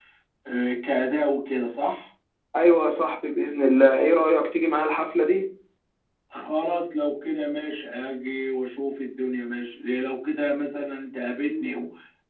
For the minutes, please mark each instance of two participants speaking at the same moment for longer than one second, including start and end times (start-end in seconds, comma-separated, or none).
none